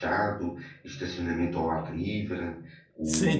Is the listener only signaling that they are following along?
No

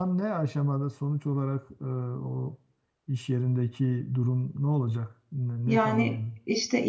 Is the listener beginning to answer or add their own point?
Yes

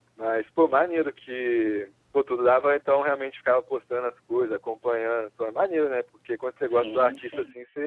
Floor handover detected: No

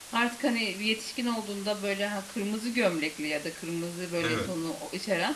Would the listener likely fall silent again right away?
Yes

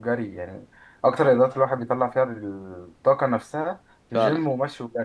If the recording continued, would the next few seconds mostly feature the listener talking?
No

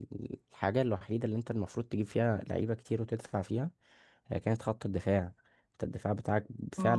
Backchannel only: No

